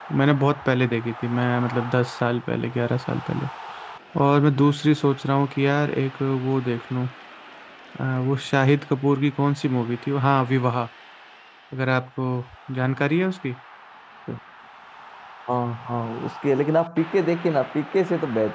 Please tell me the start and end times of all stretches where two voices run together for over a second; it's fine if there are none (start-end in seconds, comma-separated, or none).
none